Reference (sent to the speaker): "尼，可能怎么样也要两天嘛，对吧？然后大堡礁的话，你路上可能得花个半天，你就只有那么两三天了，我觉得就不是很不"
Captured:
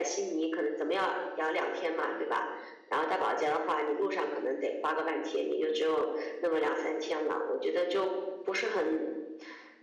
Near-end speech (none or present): none